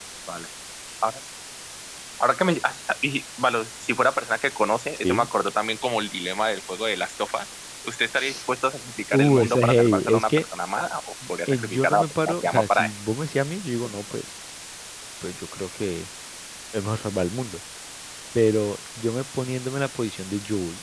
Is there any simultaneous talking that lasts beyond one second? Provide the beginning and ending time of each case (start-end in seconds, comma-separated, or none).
9.1-10.4, 11.5-12.9